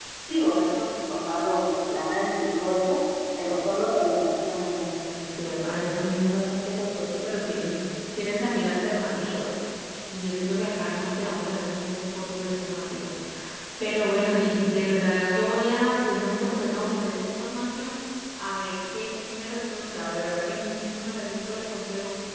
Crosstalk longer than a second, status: none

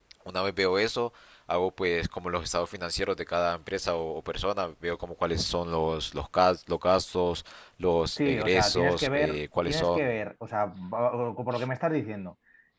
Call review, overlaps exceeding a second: present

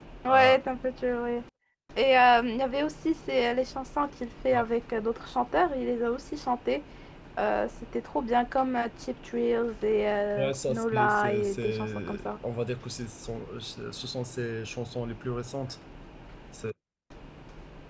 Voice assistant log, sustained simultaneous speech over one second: present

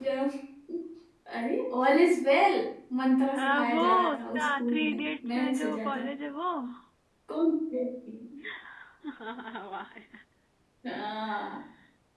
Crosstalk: present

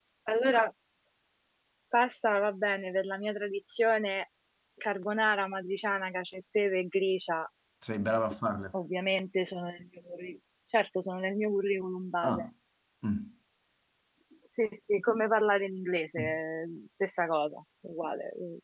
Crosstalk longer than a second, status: none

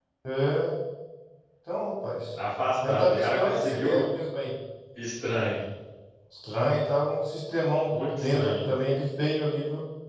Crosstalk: present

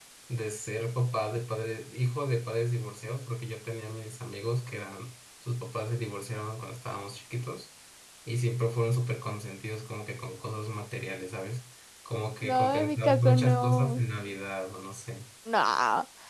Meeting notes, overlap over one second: present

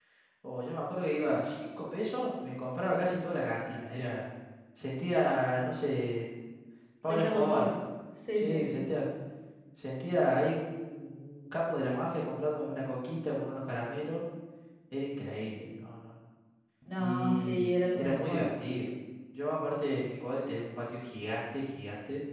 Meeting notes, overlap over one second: present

